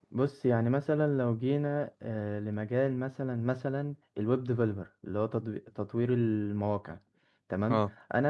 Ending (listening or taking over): listening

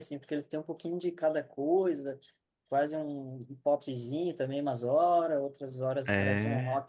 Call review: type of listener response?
listening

